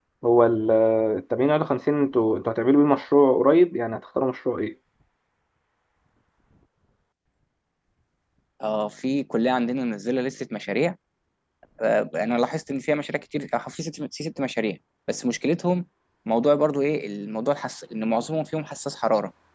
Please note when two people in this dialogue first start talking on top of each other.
none

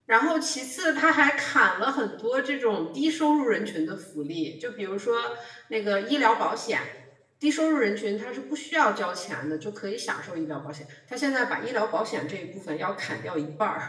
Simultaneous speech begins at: none

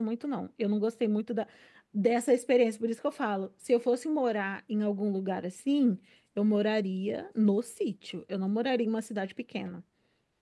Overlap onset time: none

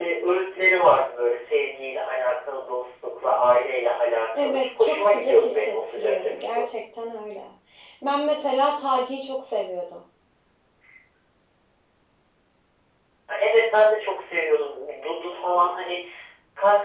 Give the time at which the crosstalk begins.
4.3 s

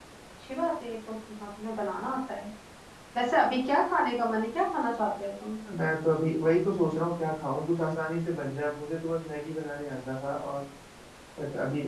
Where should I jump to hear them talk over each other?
none

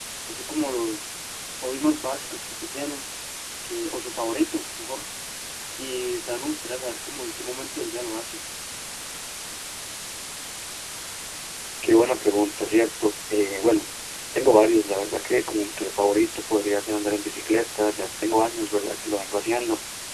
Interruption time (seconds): none

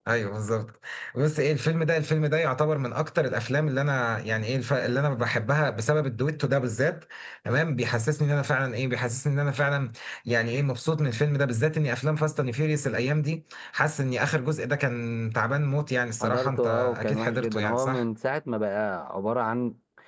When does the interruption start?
16.2 s

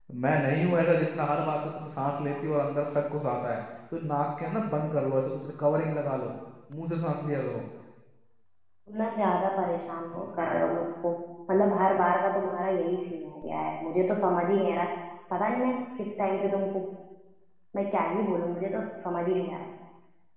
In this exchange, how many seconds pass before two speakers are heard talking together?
none

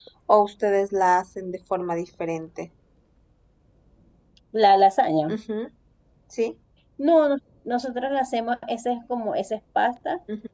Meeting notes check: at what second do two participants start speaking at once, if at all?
none

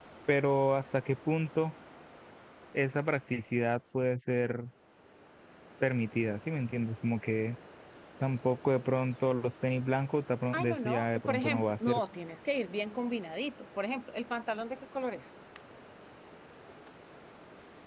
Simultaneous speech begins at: 10.5 s

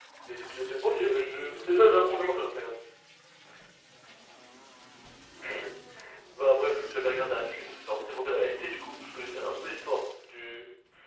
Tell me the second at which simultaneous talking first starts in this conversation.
0.8 s

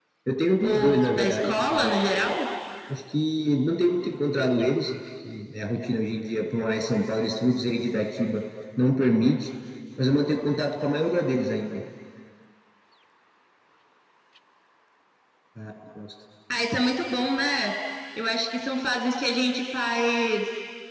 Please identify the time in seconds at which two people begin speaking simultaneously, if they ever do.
0.6 s

